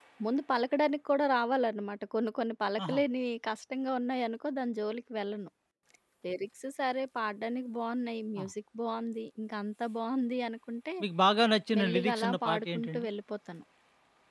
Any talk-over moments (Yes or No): Yes